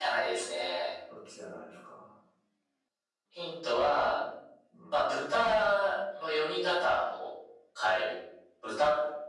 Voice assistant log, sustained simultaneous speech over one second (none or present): none